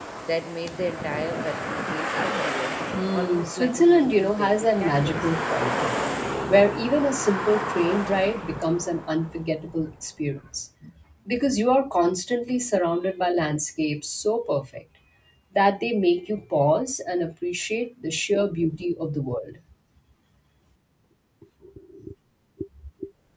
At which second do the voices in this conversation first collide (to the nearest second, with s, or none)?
3 s